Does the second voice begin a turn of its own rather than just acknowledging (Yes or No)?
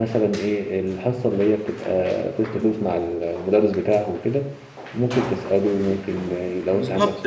Yes